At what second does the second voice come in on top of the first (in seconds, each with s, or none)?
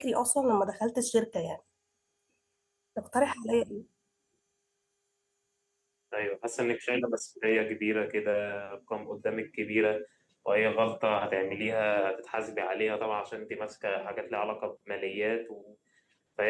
none